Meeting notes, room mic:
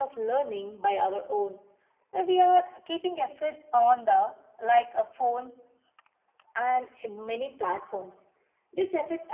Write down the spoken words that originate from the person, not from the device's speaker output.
none

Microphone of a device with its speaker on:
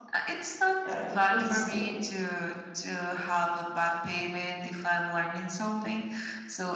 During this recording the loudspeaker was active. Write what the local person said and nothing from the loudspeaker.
uh, in the school,

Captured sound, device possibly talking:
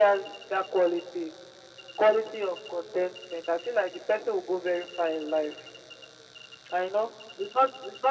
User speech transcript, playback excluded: none

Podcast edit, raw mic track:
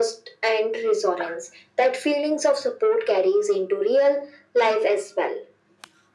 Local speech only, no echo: none

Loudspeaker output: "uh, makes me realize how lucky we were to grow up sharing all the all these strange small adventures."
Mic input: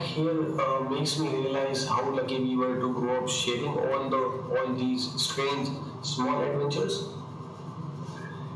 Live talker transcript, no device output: none

